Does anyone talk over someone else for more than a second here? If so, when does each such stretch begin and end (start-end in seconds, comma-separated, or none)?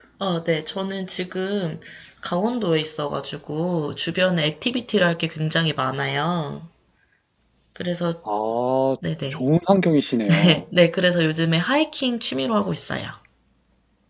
none